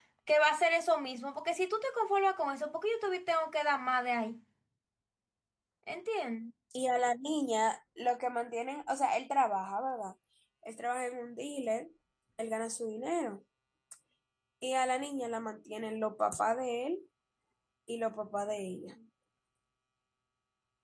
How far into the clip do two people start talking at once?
none

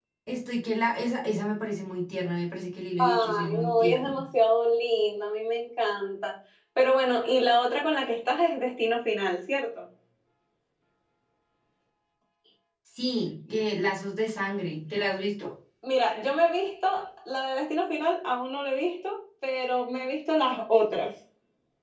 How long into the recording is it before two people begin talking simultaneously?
3.0 s

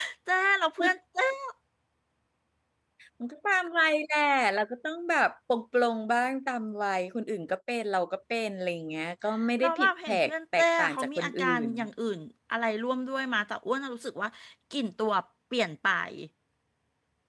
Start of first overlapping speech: 9.6 s

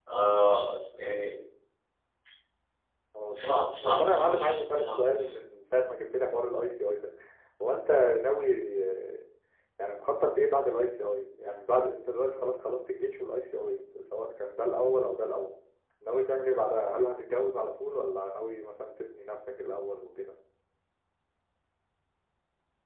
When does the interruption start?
3.3 s

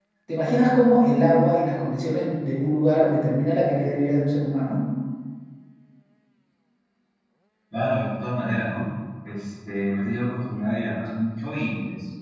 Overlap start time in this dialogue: none

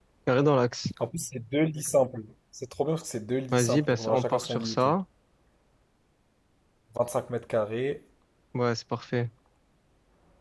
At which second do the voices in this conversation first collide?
3.5 s

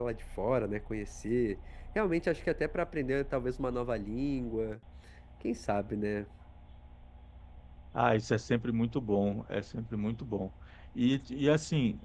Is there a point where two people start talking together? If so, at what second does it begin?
none

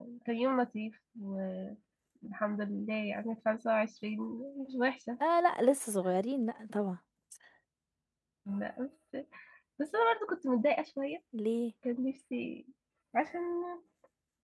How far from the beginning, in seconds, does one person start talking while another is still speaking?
none

